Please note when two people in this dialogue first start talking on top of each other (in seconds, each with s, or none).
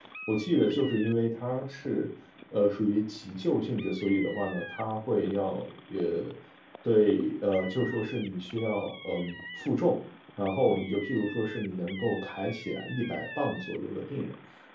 none